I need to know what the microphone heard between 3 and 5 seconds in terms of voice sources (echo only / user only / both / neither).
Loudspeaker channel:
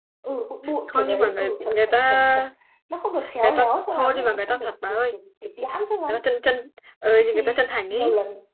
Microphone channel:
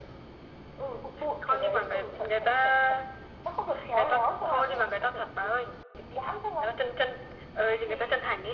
echo only